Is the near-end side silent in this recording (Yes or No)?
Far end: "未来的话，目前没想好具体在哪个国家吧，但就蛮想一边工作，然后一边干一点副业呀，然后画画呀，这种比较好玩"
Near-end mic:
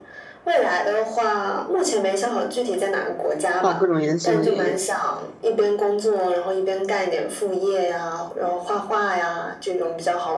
No